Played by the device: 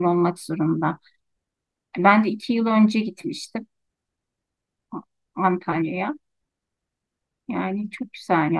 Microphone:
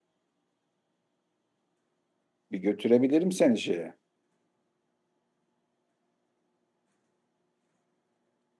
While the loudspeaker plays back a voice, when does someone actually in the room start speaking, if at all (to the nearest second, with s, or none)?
3 s